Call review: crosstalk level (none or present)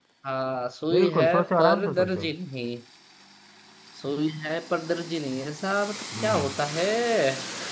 present